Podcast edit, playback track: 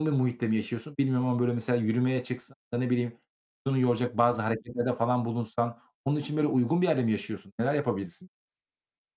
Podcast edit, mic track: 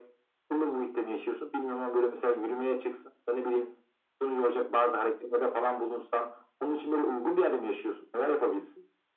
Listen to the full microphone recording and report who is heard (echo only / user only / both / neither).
echo only